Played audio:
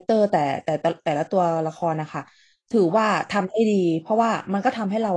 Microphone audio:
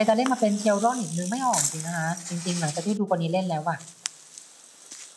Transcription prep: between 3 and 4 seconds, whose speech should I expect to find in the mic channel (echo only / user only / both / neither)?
user only